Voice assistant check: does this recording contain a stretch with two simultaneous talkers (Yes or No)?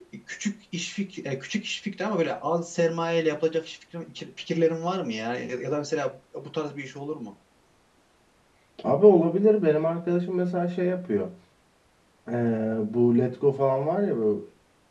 No